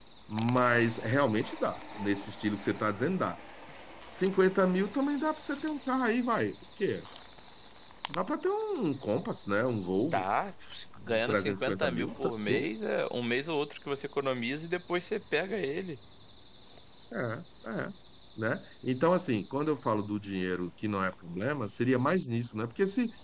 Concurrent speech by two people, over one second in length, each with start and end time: 11.0-12.7

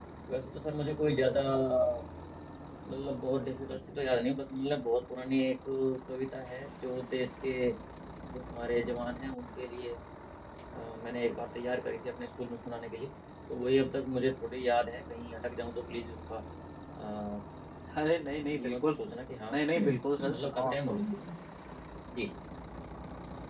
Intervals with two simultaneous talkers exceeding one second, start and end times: 19.5-21.0

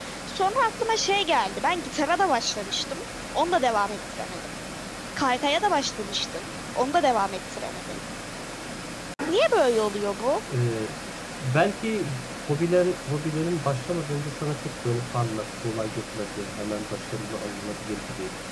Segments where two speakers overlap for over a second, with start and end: none

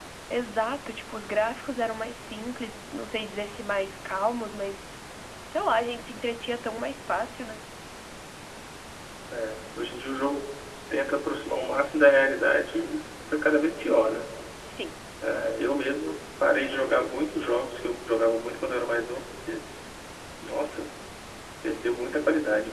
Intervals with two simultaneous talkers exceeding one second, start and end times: none

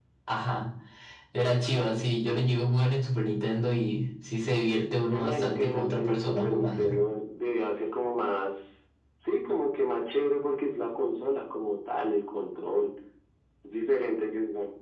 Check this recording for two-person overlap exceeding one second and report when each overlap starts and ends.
5.1-6.9

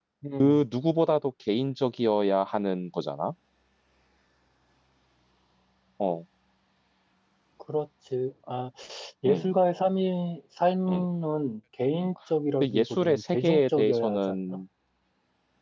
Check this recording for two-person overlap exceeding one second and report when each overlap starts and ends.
12.6-14.6

